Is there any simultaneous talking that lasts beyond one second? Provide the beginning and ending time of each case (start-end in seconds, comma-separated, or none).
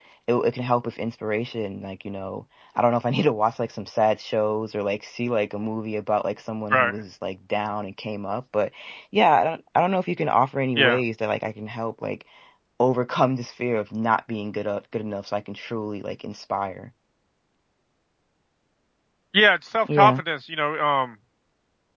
none